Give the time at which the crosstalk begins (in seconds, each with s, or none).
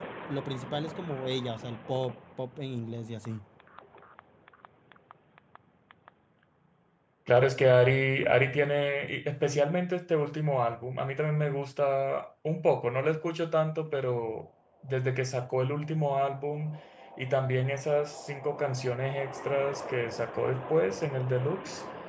none